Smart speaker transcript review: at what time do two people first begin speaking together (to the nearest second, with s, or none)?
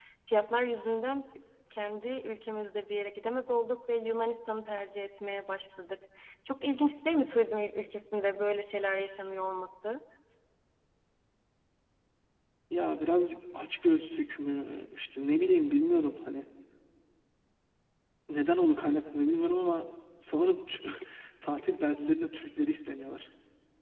none